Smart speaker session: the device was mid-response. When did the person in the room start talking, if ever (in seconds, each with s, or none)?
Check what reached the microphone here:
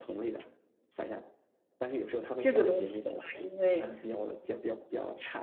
2.4 s